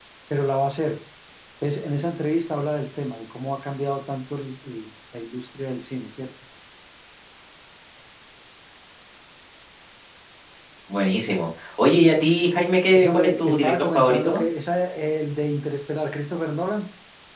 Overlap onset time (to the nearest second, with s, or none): 13 s